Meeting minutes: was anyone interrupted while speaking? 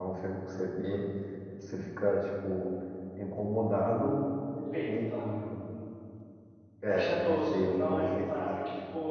Yes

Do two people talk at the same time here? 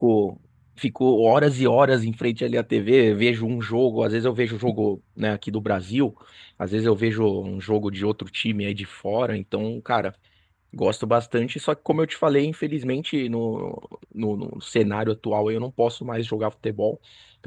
No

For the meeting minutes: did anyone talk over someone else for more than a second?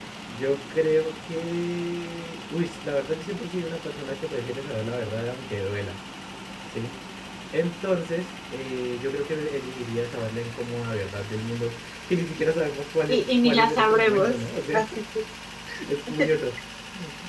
Yes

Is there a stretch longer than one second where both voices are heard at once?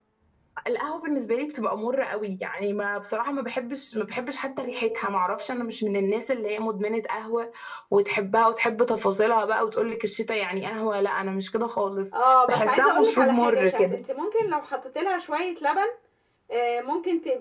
Yes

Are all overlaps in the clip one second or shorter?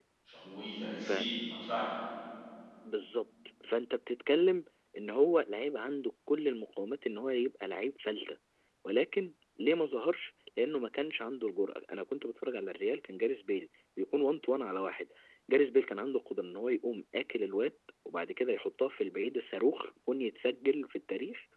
Yes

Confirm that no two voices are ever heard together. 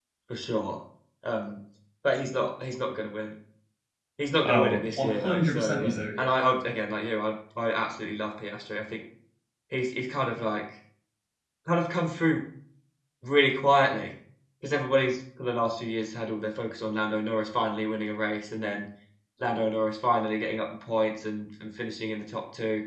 No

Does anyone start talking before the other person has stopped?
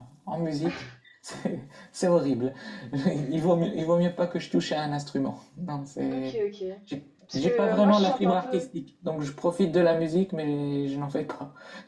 Yes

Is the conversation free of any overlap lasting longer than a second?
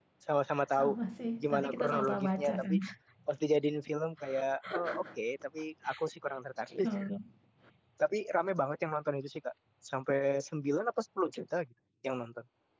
No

